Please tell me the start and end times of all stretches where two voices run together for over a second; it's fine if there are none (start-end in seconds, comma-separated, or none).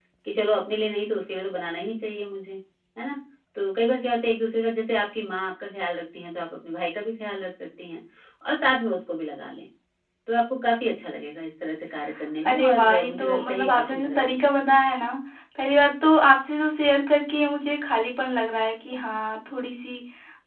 12.4-14.6